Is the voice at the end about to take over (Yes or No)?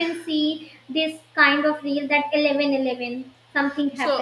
Yes